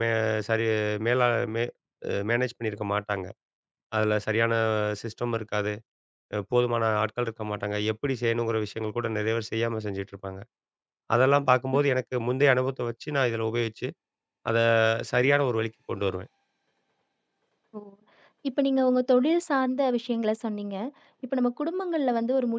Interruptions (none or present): none